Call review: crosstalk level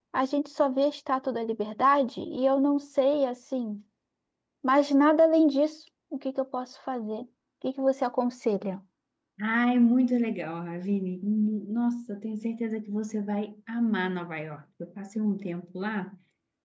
none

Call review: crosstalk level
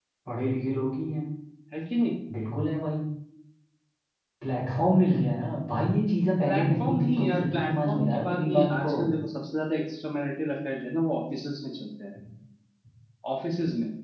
present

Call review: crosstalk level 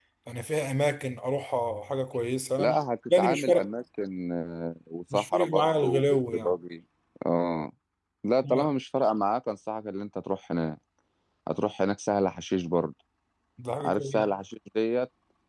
present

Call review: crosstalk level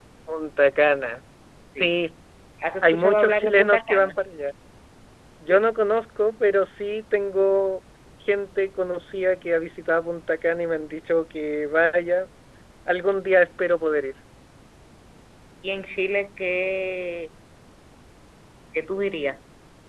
present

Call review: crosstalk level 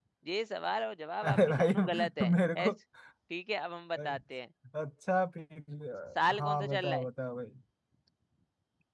present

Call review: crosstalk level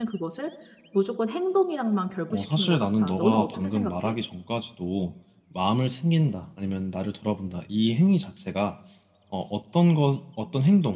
present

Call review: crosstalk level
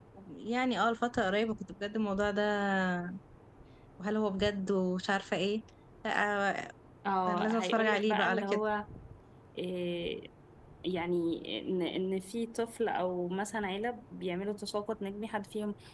present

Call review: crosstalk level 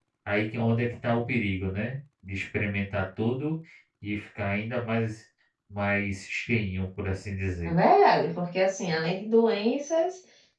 none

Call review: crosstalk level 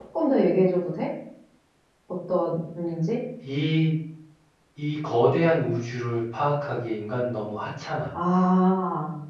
none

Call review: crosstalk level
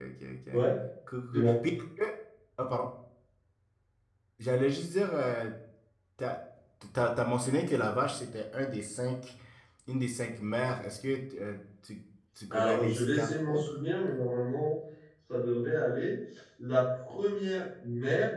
present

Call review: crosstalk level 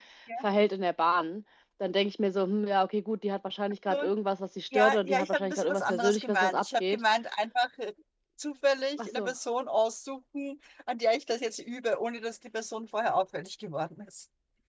present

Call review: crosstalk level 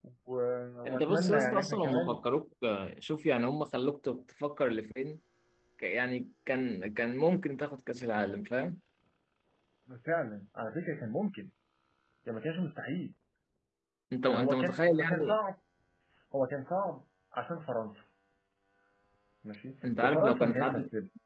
present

